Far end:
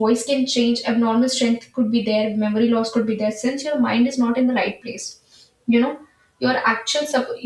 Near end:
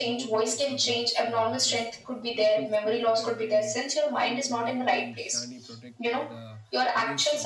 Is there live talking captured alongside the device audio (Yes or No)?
Yes